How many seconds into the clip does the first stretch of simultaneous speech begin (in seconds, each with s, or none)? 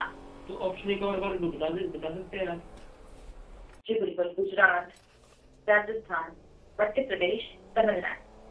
none